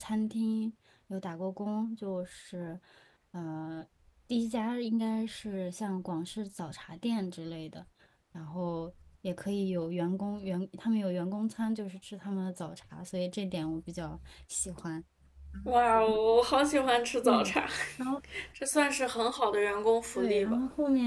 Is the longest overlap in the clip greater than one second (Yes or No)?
No